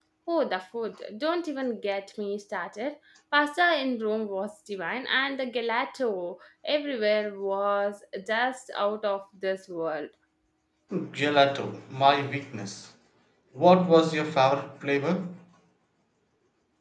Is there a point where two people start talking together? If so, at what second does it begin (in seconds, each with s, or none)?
none